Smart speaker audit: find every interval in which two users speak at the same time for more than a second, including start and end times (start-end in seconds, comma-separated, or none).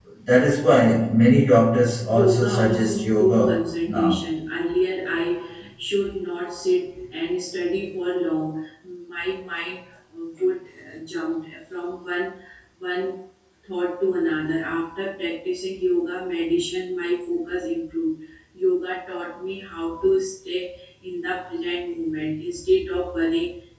2.0-4.2